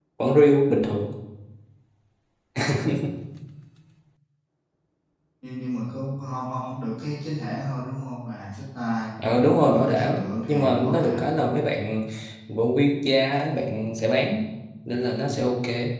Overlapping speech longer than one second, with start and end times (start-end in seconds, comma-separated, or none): 9.6-11.4